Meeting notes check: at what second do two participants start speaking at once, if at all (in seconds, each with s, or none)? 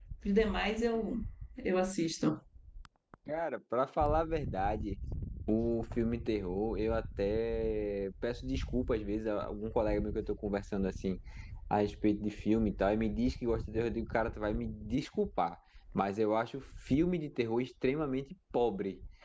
none